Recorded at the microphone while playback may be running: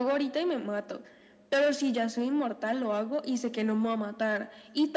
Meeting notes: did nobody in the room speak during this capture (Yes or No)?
Yes